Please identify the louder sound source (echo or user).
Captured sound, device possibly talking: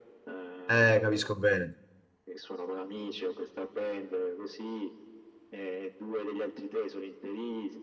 user